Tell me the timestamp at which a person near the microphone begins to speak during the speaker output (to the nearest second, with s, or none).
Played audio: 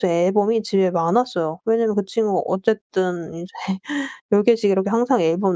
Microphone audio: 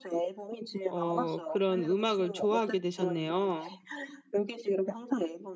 1 s